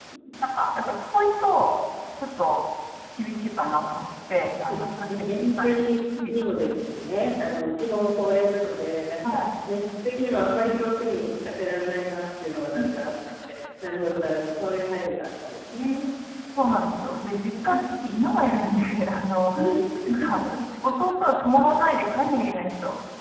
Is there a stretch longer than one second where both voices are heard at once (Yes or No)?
Yes